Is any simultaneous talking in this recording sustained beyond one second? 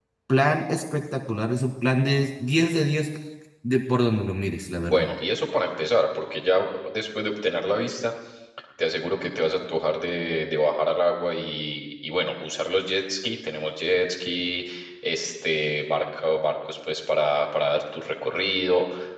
No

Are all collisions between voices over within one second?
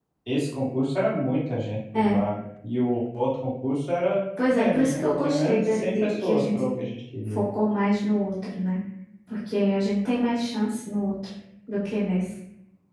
No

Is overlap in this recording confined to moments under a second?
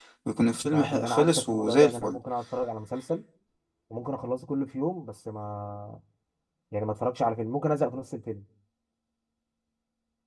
No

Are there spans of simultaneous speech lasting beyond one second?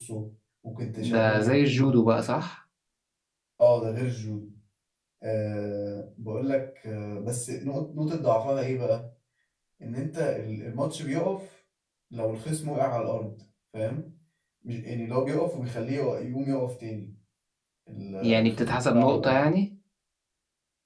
Yes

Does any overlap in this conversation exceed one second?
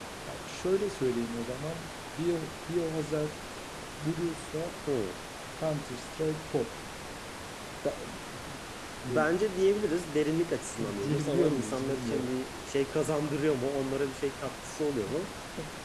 Yes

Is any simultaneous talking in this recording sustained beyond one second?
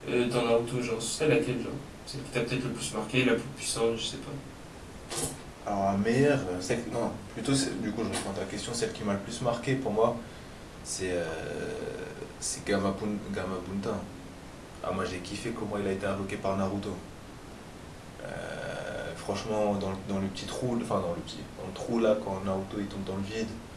No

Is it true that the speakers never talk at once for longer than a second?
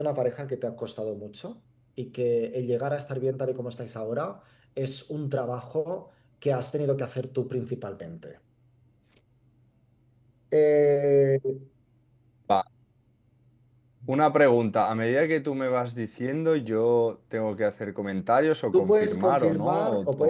No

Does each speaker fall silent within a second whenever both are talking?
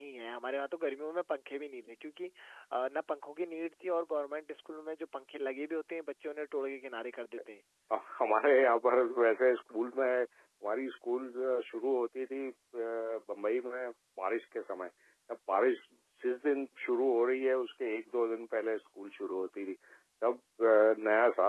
Yes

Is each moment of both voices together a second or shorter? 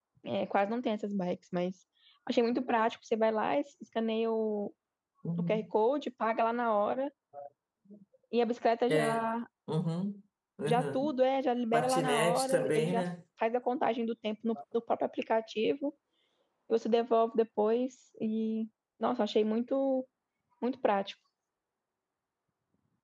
No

